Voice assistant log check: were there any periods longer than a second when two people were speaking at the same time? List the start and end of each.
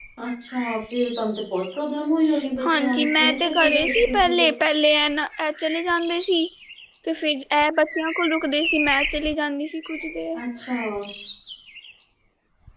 2.6-4.5

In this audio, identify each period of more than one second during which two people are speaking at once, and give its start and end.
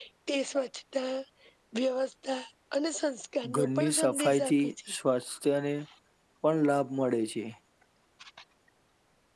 3.5-4.9

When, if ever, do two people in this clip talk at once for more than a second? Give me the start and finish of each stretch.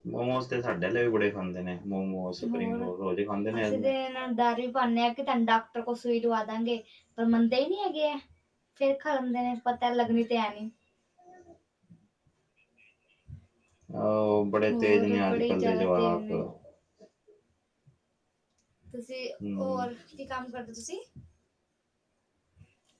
14.7-16.2

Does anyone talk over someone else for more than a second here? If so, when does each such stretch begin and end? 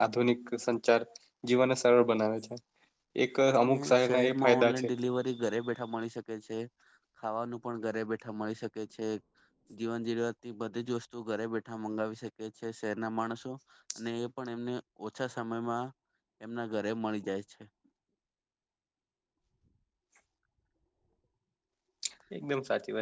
3.6-4.9

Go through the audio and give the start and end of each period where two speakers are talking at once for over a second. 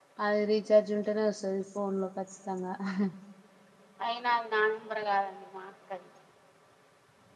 none

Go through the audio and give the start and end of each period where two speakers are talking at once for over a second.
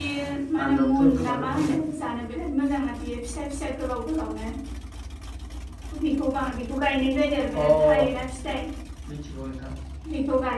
0.6-1.8

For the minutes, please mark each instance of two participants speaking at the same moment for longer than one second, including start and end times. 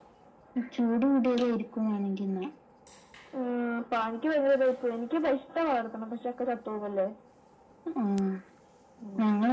none

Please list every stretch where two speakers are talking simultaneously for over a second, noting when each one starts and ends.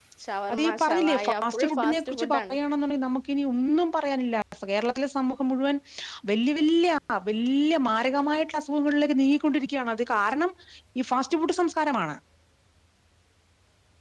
0.5-2.6

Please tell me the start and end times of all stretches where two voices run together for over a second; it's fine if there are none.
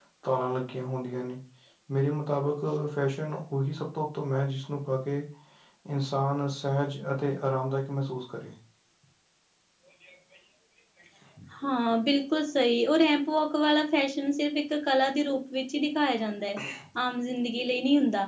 none

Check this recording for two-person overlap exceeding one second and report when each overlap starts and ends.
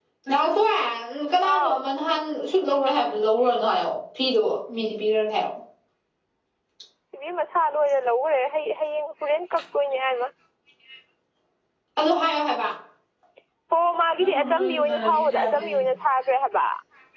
14.2-15.8

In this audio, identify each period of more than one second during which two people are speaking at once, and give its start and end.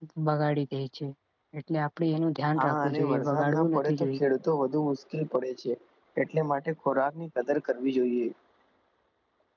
2.6-4.2

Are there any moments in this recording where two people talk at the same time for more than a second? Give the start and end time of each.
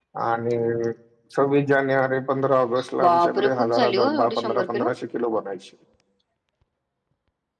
3.0-4.9

